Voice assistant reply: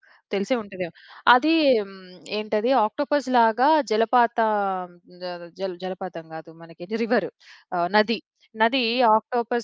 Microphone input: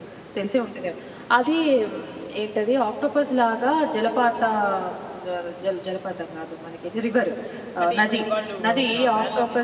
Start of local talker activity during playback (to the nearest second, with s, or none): 8 s